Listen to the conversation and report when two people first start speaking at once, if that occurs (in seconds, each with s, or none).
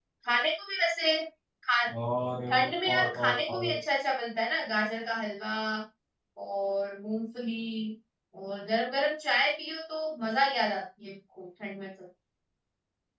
2.5 s